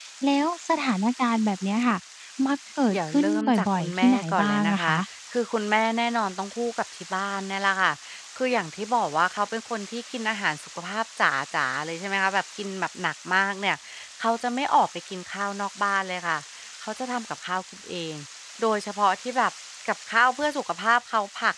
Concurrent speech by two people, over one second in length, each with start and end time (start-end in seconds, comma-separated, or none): 2.9-4.9